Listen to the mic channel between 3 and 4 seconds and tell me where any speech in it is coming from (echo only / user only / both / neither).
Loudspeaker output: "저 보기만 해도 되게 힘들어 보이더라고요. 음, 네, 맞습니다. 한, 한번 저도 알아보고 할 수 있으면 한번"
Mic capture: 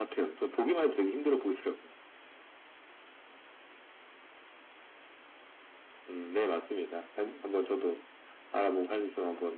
neither